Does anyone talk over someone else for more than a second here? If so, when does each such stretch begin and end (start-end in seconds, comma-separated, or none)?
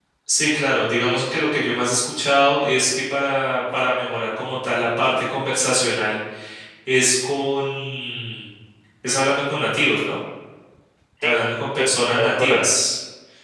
11.2-12.8